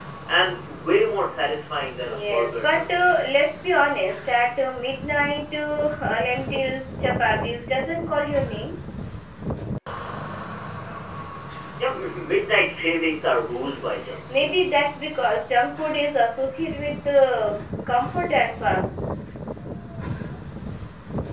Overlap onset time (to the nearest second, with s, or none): 2 s